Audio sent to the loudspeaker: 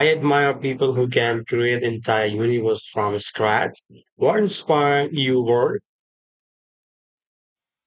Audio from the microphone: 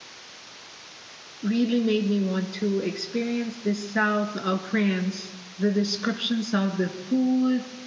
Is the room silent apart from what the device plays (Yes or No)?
No